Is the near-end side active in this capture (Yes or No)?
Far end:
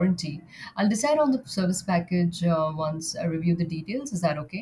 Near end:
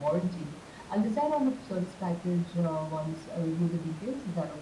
No